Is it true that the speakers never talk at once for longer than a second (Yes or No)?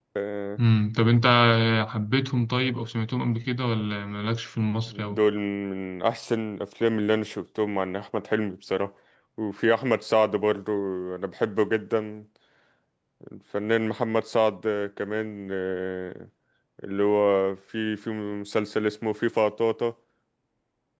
Yes